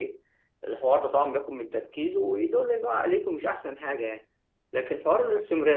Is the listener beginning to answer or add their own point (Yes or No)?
No